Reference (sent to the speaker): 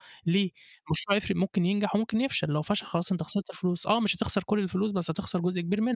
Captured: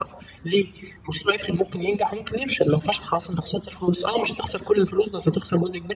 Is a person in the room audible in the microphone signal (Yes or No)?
No